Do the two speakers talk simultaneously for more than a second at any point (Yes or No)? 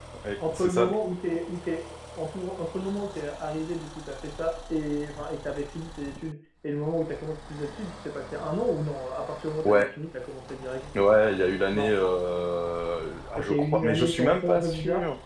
Yes